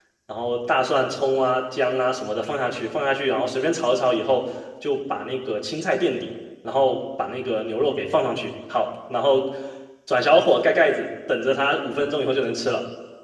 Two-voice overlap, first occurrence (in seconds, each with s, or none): none